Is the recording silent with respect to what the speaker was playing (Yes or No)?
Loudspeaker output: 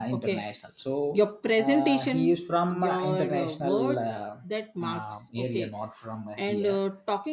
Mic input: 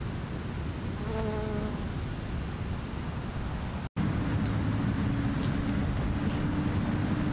Yes